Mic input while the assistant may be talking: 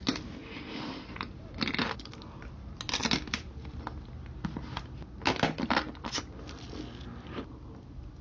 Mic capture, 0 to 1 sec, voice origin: neither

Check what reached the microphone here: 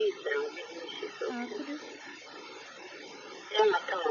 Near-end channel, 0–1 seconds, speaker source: echo only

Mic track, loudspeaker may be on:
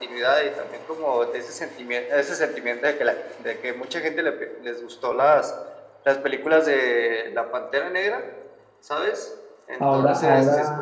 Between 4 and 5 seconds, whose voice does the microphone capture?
echo only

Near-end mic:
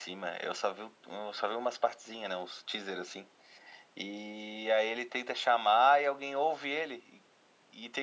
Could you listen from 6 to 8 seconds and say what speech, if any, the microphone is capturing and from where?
echo only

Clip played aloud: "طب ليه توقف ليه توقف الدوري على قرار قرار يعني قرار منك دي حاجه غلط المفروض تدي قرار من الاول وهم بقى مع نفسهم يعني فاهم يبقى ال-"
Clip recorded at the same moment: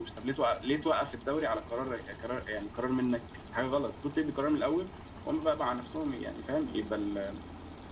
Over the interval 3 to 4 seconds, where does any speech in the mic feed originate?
echo only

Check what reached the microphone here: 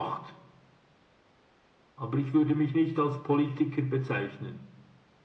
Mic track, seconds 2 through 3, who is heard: echo only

